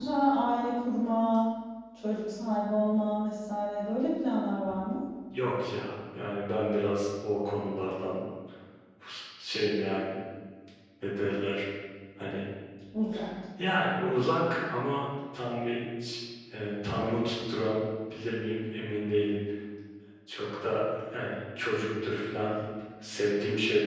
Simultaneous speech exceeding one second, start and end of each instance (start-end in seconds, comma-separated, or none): none